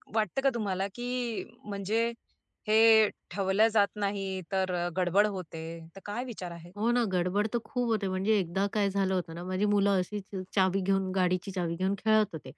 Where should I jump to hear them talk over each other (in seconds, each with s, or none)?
none